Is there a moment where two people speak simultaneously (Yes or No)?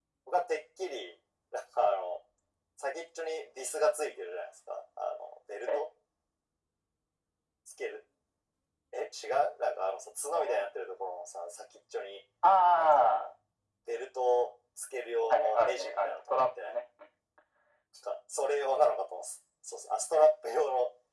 Yes